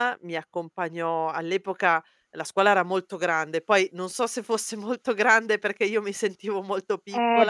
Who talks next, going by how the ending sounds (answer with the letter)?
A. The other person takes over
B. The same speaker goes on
A